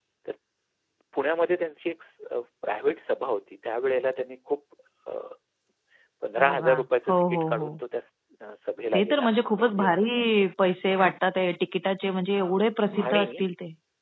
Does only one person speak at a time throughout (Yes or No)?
No